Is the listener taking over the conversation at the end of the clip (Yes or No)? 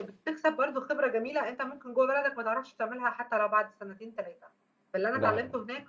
No